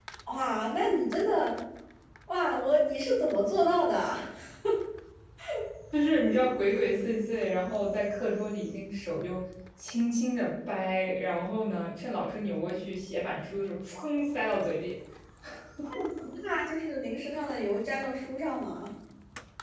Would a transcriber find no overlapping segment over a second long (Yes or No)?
Yes